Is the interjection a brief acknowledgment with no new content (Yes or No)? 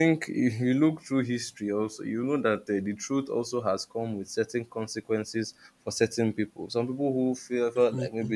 Yes